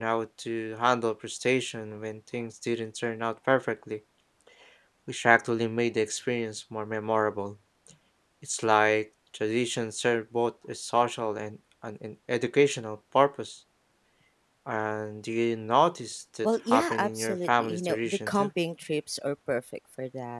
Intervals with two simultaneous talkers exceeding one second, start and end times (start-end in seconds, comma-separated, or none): 16.4-18.5